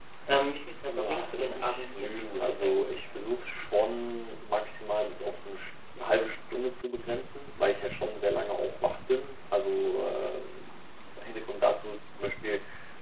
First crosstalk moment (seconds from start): 1.1 s

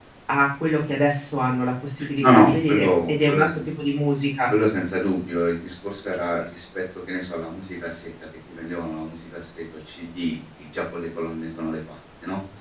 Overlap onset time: 2.2 s

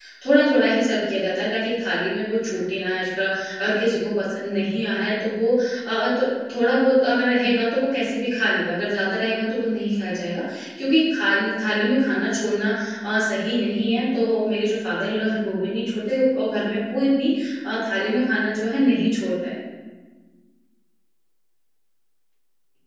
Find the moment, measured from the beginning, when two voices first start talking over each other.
none

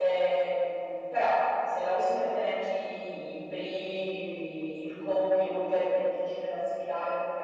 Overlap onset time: none

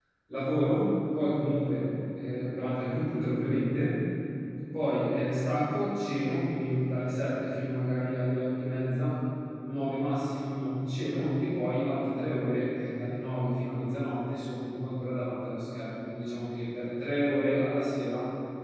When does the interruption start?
none

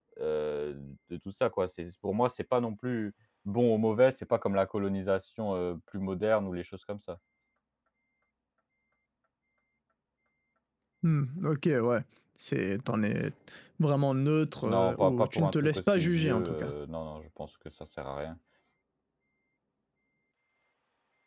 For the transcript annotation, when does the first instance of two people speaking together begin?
14.6 s

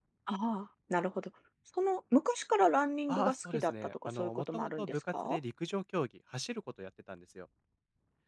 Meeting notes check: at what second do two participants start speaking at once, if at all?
3.1 s

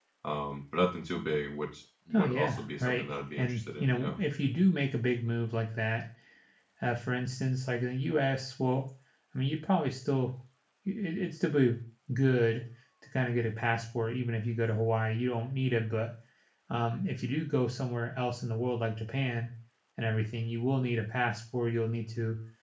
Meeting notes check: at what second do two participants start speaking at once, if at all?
2.1 s

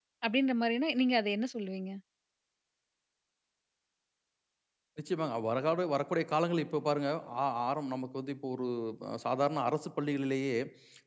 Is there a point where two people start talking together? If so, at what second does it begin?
none

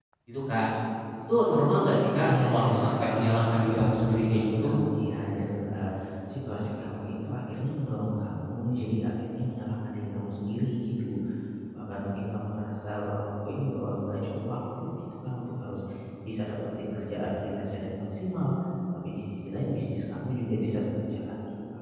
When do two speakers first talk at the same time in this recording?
2.2 s

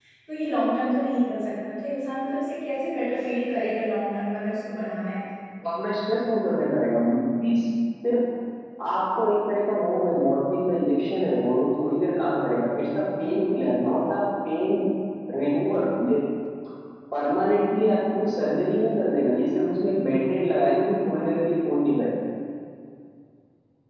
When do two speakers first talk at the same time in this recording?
none

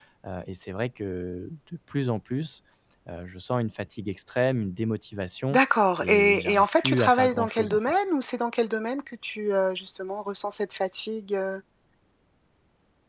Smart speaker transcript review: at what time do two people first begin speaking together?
6.0 s

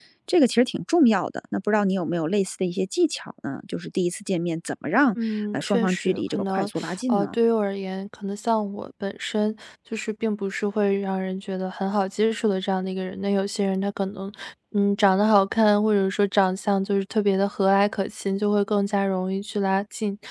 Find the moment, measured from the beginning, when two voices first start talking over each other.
5.3 s

